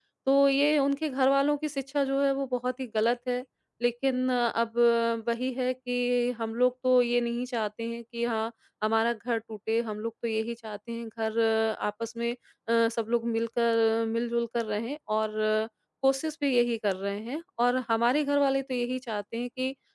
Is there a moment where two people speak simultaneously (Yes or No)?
No